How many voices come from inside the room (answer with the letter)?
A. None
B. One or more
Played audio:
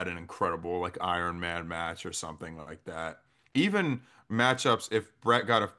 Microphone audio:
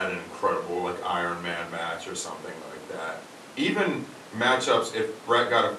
A